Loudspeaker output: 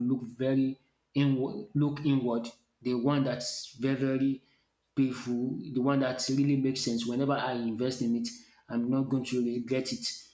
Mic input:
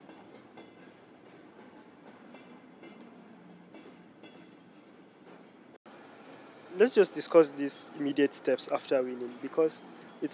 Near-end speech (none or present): present